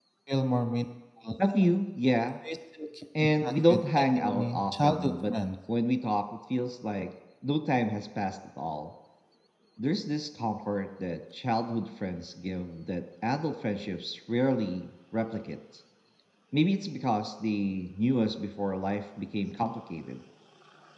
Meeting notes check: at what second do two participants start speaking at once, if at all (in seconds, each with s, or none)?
3.2 s